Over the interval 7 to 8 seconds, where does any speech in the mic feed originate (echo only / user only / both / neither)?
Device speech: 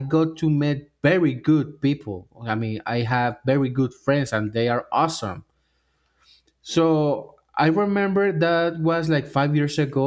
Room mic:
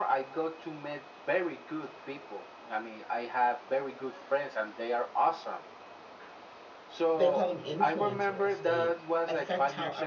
both